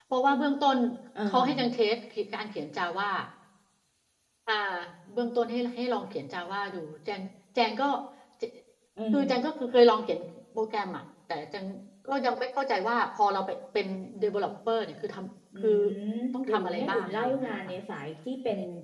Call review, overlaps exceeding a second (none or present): present